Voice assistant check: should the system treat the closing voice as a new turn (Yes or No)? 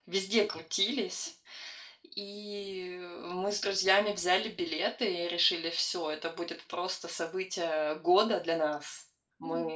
Yes